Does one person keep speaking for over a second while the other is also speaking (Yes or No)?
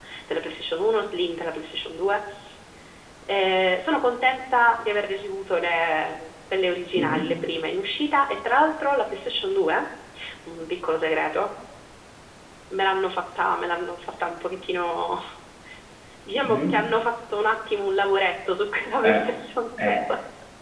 No